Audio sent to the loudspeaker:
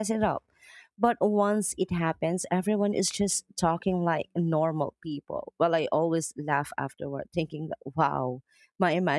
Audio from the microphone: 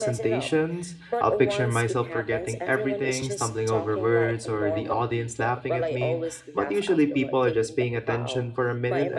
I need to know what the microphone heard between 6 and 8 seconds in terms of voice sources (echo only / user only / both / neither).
both